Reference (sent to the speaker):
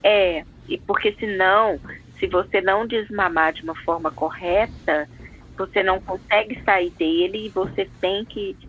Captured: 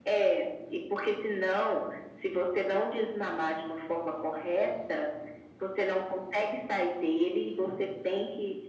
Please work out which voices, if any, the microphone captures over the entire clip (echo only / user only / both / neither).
echo only